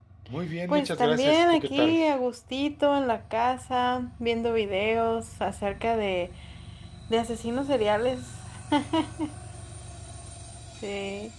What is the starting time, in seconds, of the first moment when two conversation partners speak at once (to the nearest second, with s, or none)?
1 s